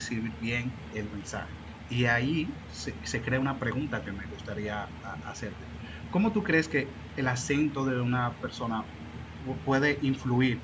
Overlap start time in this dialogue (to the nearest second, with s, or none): none